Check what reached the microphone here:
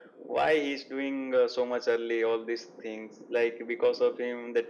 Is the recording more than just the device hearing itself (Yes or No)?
No